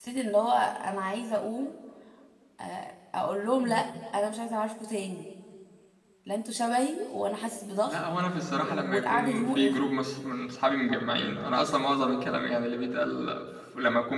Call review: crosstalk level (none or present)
present